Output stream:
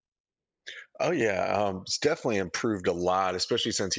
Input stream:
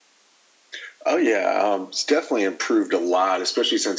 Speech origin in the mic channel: echo only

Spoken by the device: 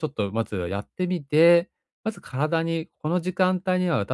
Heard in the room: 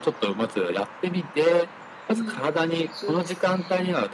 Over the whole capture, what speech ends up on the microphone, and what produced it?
both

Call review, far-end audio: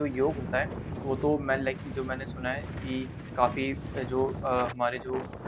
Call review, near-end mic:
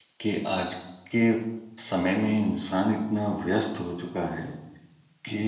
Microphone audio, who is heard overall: user only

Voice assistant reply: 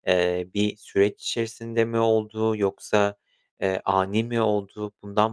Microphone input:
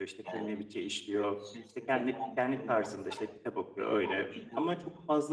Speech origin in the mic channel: both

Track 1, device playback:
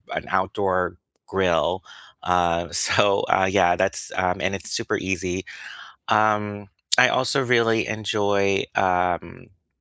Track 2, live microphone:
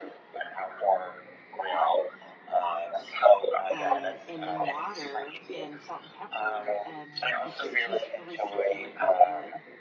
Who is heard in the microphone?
both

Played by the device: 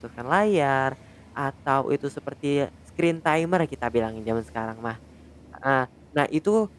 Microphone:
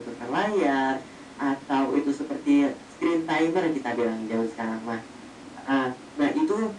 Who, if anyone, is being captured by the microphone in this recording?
echo only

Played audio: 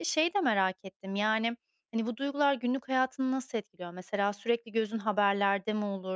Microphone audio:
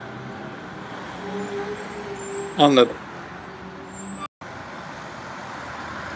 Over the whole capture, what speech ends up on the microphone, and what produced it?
user only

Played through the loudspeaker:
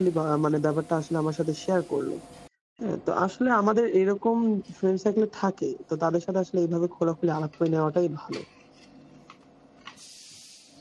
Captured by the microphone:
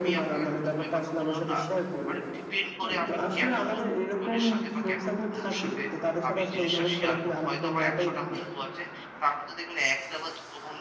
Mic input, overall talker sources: both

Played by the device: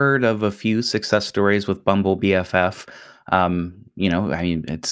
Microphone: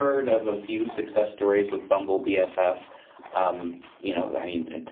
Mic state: echo only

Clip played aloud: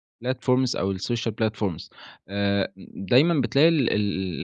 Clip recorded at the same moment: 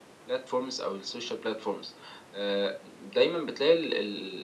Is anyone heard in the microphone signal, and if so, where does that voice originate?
echo only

